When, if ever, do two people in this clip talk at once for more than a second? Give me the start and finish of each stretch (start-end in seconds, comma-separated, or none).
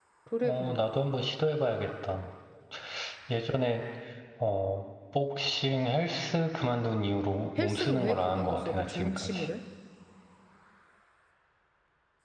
7.6-9.5